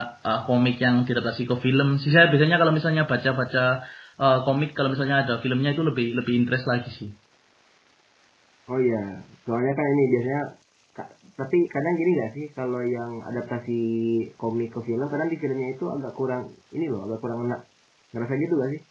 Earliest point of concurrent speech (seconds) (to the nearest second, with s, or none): none